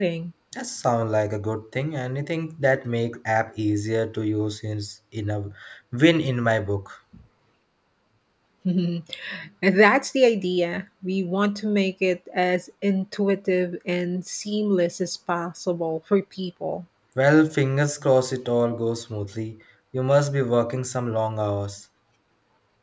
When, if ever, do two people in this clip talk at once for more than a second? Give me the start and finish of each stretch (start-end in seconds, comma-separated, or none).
none